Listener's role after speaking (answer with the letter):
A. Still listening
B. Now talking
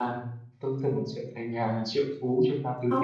B